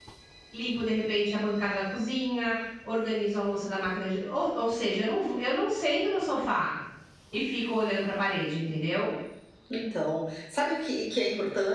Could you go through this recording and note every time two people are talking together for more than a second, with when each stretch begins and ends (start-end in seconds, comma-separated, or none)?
none